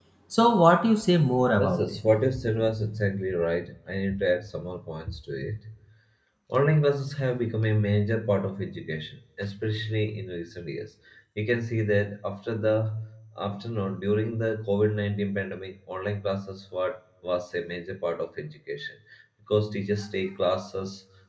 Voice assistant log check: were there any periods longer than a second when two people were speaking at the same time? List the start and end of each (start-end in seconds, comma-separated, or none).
none